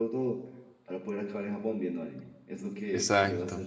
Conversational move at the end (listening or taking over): listening